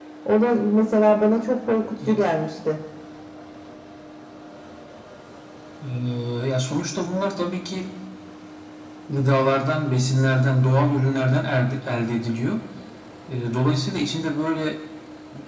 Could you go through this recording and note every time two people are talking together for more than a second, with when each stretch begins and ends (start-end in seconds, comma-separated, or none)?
none